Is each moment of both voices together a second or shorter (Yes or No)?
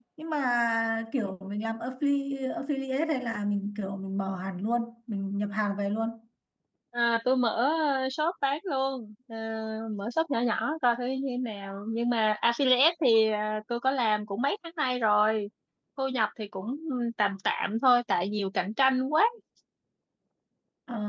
Yes